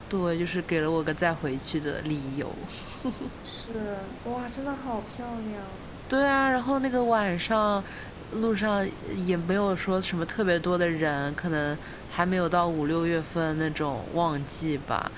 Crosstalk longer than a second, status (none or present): none